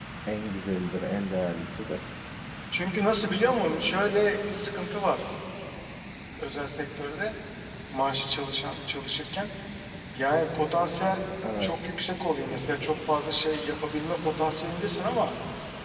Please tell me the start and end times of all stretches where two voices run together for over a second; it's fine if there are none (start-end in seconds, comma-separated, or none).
none